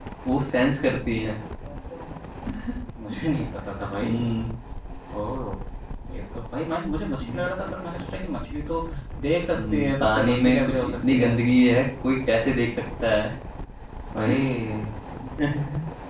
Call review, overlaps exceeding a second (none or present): present